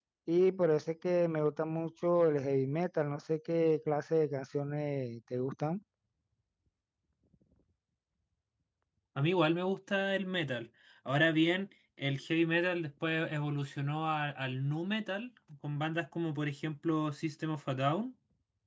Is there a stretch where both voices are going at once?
No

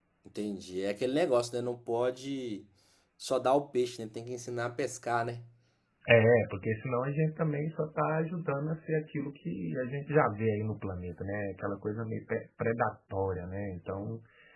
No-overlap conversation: Yes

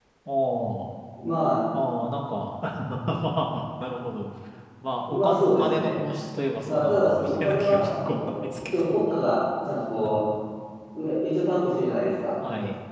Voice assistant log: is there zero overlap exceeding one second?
No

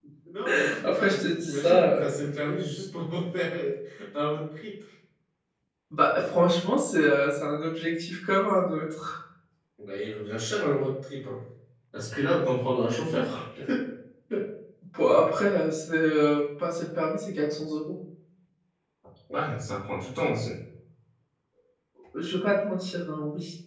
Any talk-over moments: Yes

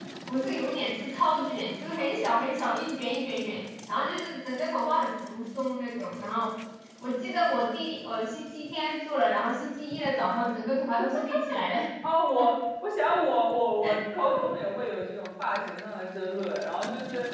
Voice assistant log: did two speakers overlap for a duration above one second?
No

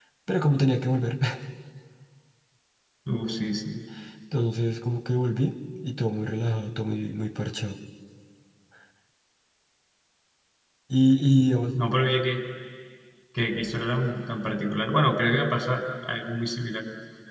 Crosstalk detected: No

